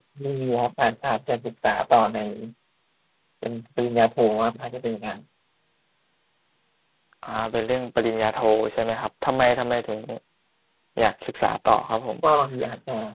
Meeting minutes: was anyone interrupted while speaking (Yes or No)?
No